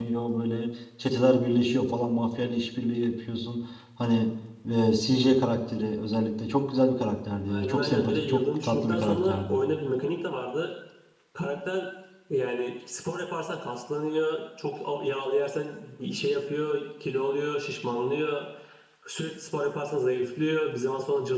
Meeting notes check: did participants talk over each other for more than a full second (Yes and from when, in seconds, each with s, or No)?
Yes, from 7.5 s